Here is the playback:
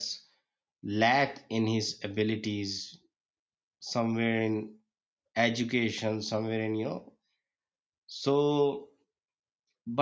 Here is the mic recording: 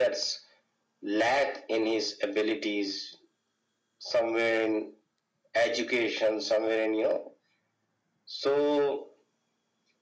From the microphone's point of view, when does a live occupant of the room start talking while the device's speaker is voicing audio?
none

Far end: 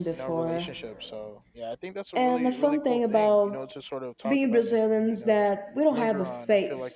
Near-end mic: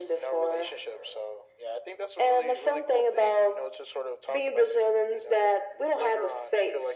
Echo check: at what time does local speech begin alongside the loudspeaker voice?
none

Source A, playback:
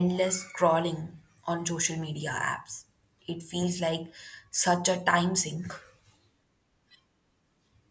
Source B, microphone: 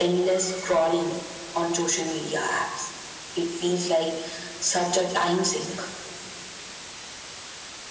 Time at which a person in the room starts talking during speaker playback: none

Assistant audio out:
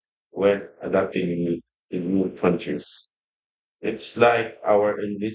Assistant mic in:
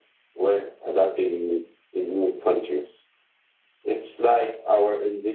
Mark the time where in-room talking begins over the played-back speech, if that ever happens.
none

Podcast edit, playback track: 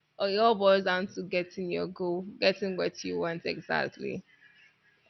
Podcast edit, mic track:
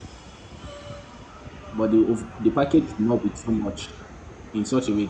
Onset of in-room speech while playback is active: 1.7 s

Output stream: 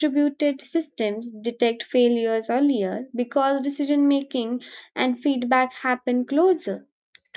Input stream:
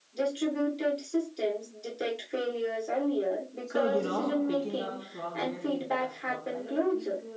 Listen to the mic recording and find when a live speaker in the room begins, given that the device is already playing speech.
3.6 s

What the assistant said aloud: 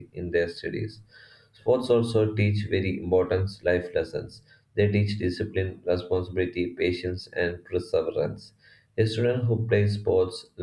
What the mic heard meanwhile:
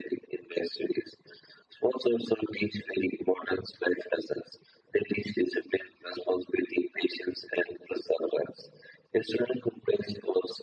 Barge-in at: none

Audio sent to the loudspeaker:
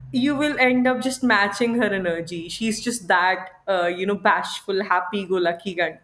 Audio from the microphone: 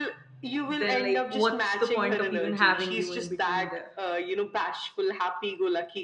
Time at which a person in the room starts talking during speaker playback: 0.7 s

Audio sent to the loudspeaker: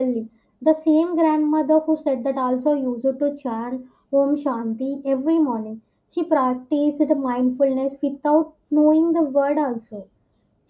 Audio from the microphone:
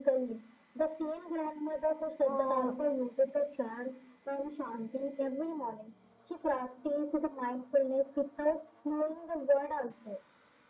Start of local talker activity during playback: 2.2 s

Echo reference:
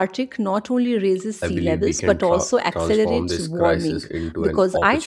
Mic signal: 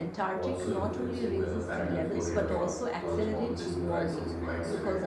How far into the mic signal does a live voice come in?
0.3 s

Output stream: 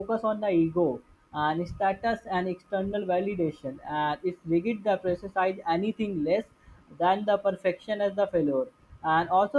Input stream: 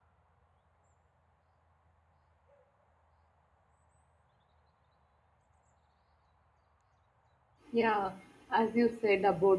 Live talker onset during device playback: 7.7 s

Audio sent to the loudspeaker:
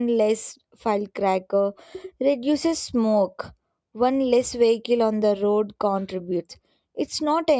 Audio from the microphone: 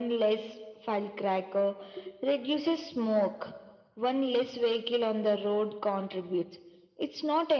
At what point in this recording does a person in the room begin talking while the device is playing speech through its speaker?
none

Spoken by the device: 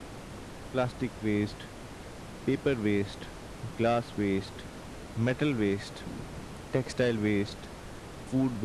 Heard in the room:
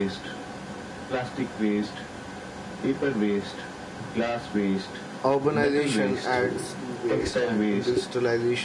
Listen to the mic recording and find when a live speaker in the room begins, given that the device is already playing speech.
5.2 s

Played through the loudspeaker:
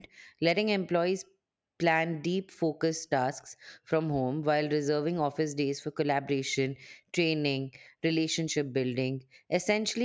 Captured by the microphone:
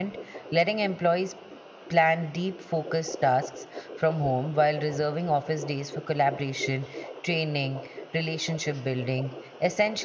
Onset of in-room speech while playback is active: none

